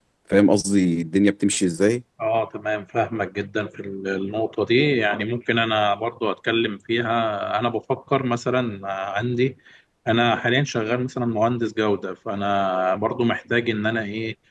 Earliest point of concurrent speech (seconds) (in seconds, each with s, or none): none